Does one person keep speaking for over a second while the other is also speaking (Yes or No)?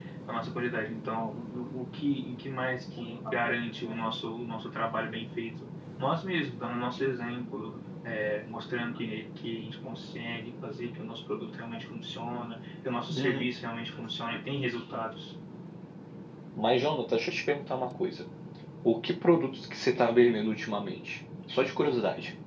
No